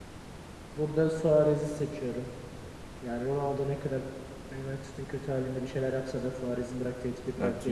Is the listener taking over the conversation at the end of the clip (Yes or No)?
Yes